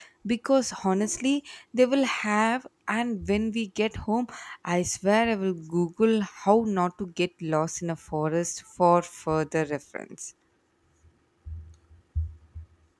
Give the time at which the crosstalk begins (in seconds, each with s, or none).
none